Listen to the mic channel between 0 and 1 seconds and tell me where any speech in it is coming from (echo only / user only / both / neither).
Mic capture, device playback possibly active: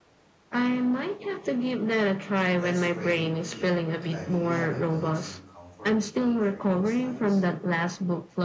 echo only